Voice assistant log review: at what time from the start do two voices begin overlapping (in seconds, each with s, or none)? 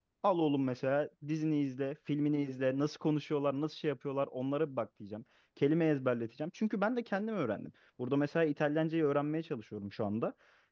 none